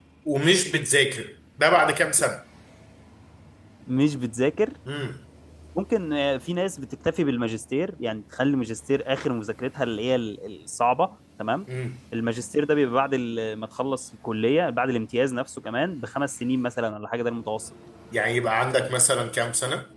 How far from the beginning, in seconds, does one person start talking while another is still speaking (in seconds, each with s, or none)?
none